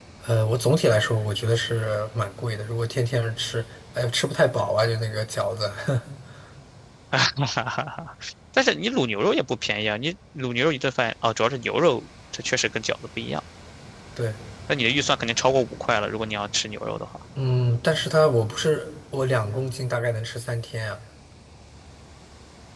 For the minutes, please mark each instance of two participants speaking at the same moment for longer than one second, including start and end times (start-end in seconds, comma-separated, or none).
none